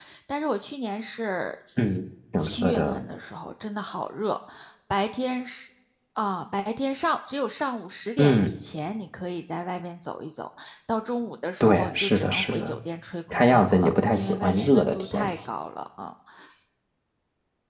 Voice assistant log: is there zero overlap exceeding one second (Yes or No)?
No